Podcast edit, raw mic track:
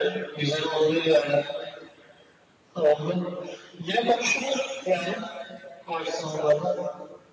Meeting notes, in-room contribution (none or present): none